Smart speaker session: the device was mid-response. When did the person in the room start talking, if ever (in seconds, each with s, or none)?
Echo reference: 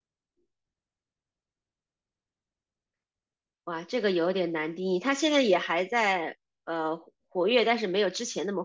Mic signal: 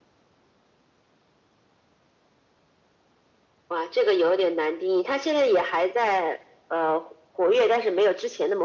none